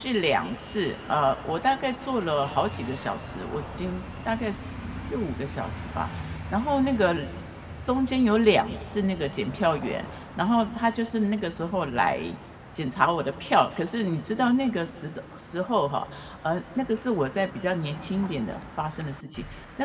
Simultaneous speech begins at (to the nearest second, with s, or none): none